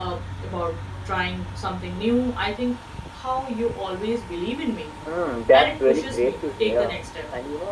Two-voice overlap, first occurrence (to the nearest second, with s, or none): 6 s